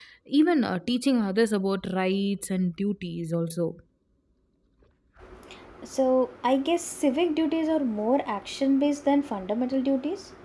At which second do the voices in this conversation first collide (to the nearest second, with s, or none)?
none